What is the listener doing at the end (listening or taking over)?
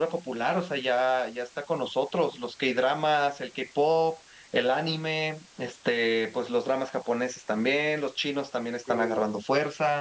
listening